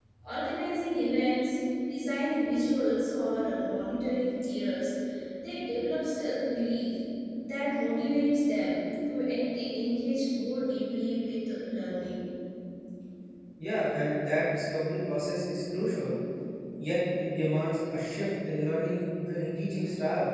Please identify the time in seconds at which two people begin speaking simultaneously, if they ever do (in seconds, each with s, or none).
none